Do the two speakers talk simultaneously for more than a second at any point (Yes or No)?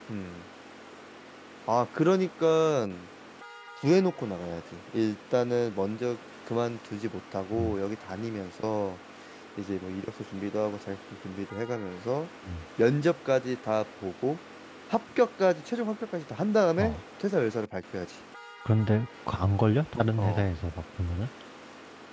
No